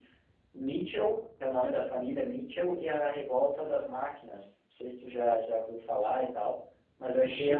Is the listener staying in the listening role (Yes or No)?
Yes